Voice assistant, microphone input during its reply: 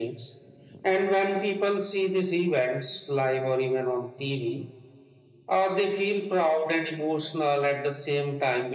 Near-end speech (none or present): none